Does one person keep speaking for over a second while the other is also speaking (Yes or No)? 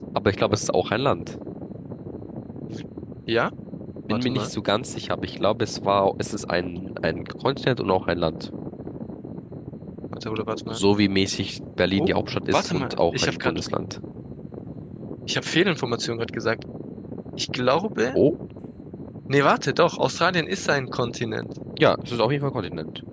Yes